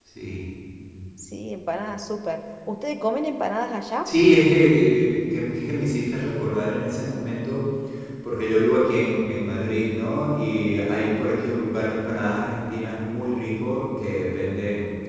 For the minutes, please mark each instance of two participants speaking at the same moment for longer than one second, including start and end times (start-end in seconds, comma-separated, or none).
none